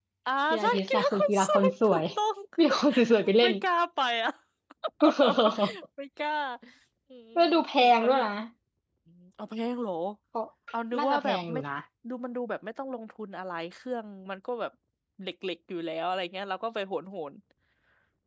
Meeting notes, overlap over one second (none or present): present